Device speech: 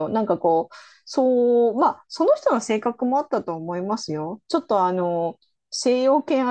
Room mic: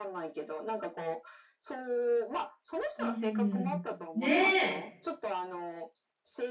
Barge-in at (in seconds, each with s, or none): 3.0 s